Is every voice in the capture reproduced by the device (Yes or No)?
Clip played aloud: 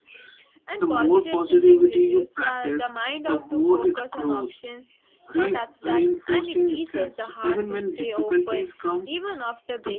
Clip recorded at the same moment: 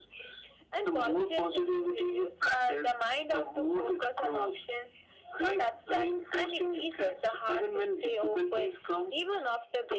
Yes